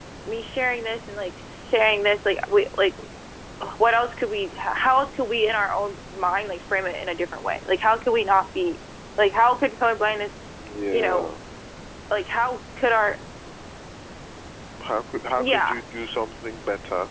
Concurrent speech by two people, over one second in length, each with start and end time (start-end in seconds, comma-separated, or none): none